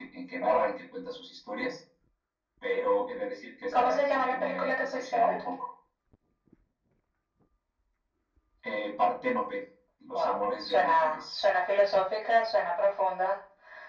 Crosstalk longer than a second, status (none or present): present